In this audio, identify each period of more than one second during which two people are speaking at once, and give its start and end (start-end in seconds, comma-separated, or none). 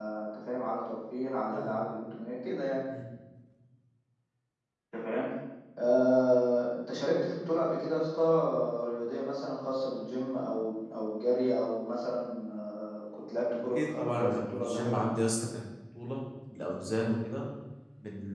13.6-15.0